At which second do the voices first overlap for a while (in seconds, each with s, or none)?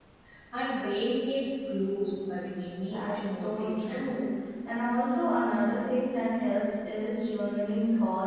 2.8 s